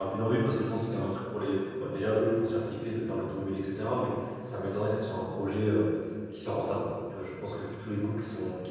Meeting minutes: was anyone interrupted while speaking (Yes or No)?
No